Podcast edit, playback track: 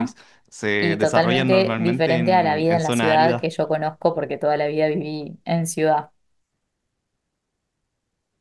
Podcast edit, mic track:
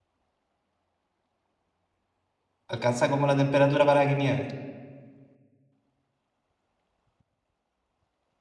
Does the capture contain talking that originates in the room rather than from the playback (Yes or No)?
Yes